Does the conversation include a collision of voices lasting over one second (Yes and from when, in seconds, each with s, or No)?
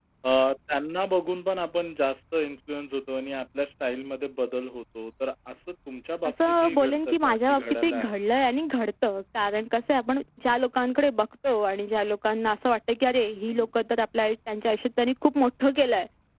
Yes, from 6.2 s